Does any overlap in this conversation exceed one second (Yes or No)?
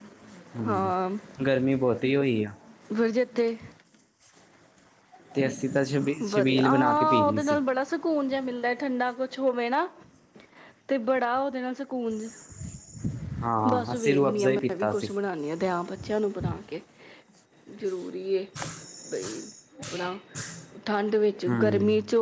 Yes